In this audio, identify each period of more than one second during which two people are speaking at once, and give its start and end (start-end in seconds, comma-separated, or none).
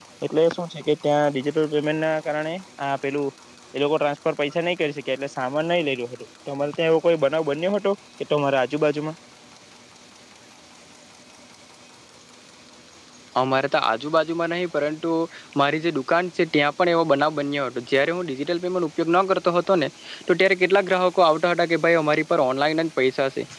none